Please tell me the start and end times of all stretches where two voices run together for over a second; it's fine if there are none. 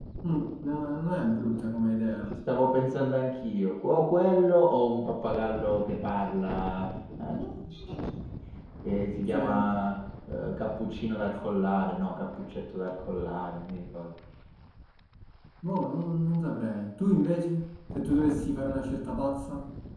none

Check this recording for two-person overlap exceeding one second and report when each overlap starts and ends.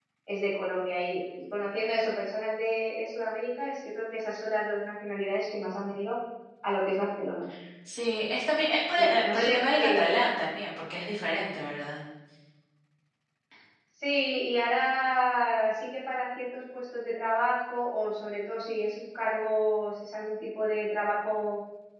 8.9-10.2

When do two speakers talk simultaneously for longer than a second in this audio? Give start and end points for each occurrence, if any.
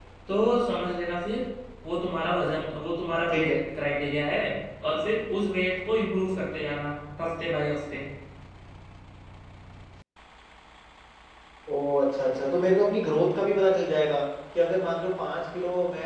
none

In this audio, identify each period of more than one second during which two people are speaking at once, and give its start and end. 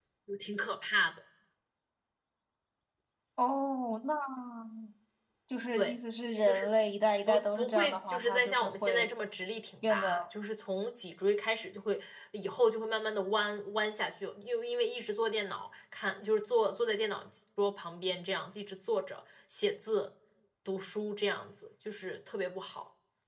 7.3-9.1

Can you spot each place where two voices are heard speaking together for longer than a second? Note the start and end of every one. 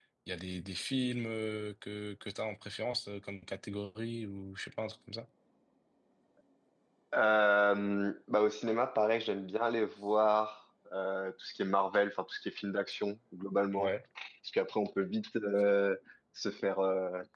none

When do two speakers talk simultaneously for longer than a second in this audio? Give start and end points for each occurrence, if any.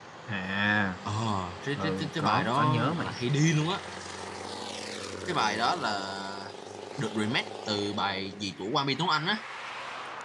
1.8-3.1

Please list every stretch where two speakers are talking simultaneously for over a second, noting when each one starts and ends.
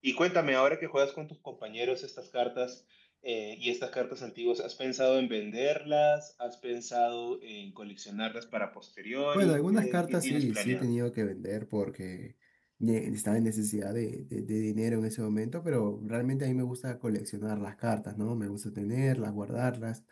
9.3-10.8

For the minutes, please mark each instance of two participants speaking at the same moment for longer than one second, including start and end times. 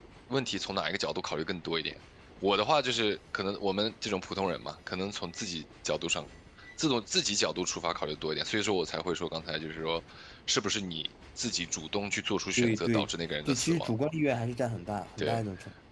none

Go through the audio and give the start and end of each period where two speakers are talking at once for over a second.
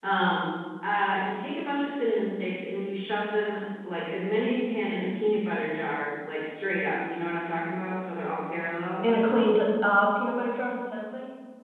none

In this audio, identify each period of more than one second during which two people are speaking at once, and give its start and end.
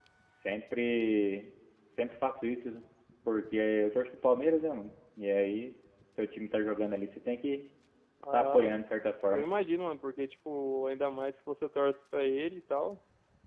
none

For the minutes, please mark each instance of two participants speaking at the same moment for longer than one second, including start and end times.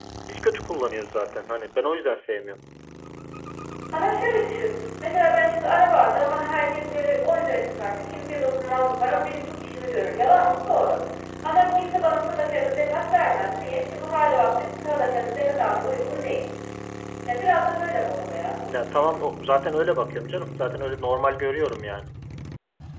none

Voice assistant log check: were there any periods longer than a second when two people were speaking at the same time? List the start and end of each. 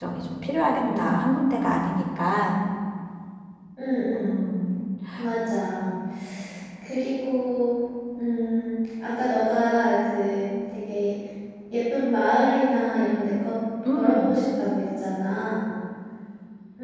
none

